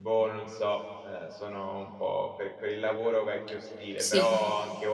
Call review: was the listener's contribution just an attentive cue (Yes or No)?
Yes